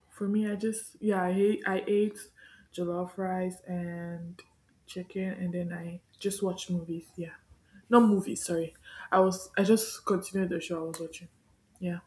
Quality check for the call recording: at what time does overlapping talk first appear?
none

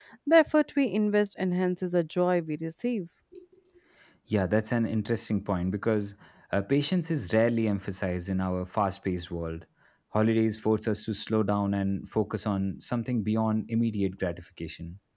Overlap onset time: none

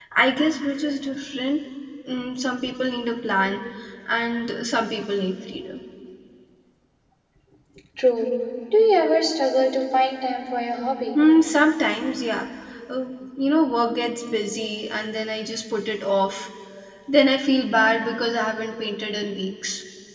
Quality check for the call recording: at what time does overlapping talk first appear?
none

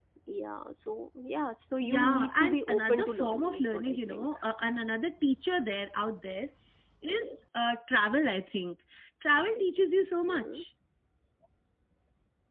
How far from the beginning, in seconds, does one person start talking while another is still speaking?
1.9 s

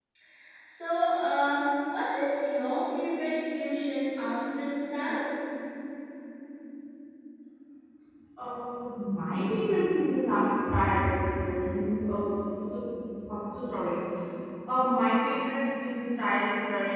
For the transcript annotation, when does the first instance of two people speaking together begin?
none

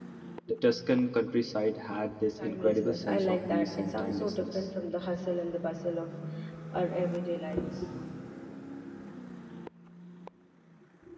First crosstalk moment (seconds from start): 2.3 s

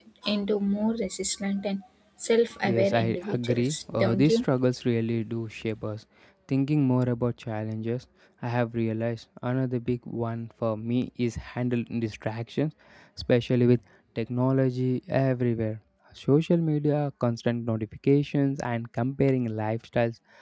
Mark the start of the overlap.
2.6 s

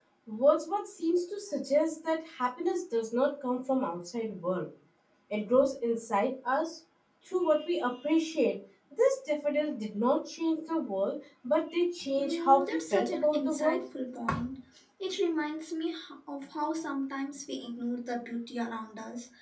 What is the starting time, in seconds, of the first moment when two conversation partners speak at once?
12.2 s

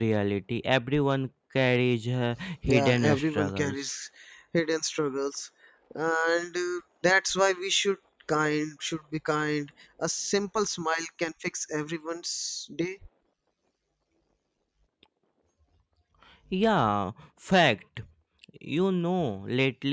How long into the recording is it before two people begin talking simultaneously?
2.7 s

